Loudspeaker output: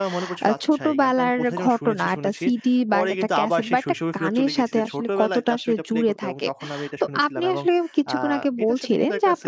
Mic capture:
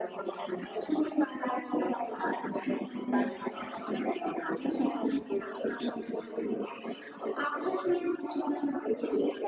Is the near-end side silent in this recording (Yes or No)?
Yes